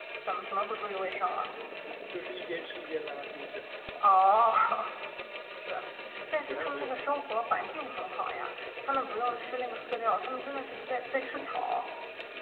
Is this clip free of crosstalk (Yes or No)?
No